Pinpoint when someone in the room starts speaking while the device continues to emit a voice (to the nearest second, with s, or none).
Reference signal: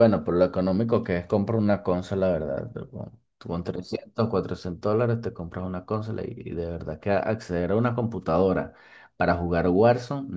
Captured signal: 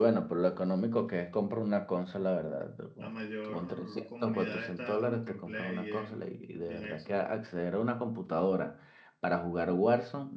3 s